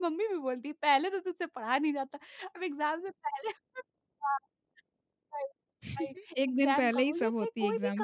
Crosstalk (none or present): present